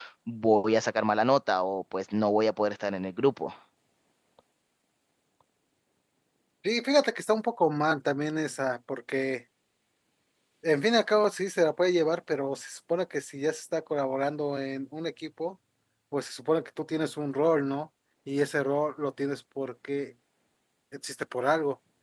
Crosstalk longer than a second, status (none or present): none